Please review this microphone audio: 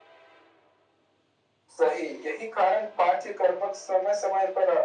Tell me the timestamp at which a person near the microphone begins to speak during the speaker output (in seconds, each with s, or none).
none